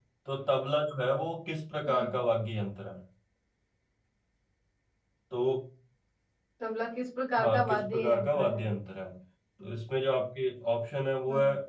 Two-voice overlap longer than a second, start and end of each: 7.4-8.6

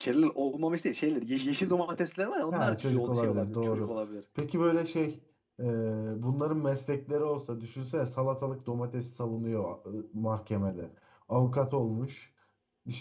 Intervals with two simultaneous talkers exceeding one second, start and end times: 2.5-3.9

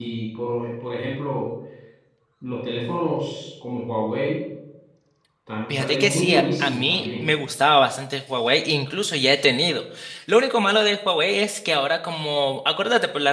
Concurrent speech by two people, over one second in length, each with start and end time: 5.7-7.3

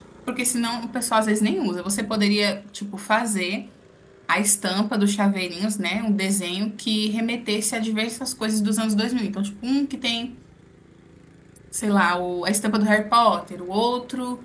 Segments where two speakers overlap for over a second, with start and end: none

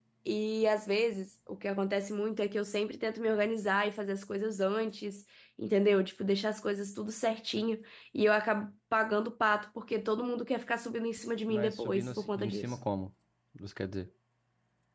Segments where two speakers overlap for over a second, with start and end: 11.5-12.8

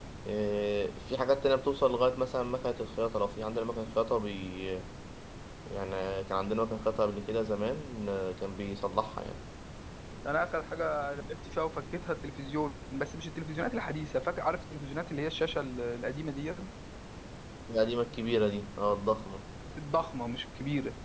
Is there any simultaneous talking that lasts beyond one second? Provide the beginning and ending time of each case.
none

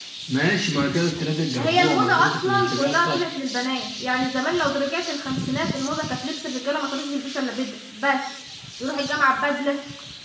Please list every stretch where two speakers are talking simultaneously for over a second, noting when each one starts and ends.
1.6-3.2

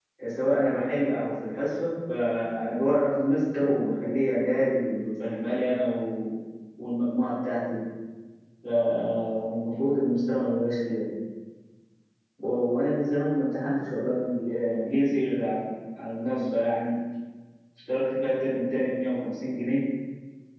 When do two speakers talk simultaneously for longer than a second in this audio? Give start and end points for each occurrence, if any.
none

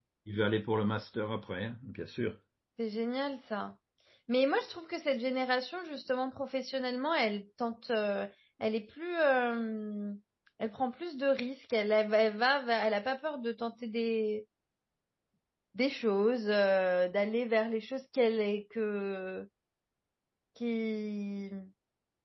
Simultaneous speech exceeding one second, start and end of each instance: none

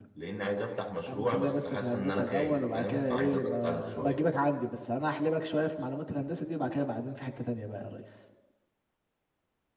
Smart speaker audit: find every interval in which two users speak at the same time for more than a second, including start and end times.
1.1-4.2

